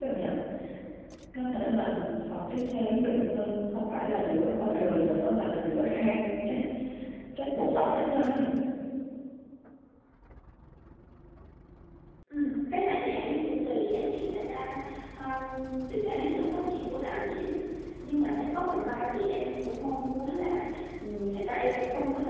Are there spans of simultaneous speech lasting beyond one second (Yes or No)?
No